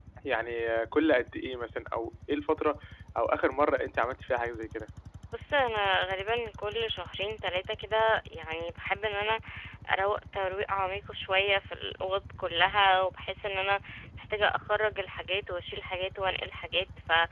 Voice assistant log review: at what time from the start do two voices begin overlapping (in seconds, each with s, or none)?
none